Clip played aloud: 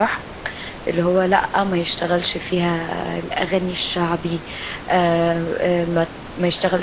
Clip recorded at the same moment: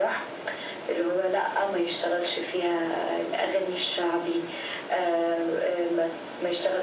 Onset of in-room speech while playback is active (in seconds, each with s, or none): none